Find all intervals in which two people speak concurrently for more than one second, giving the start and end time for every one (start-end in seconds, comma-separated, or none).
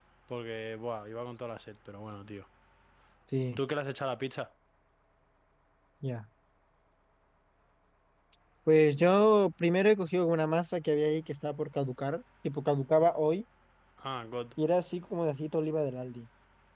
none